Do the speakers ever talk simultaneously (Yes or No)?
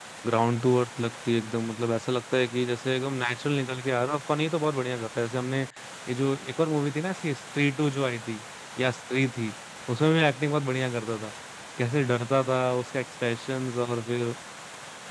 No